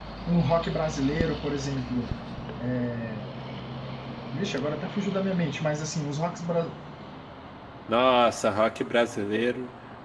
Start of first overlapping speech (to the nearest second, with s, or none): none